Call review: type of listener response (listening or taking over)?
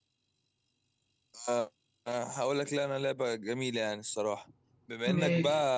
listening